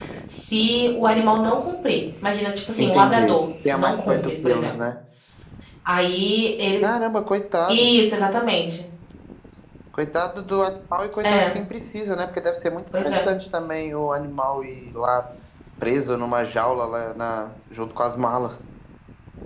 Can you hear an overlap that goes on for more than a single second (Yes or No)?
Yes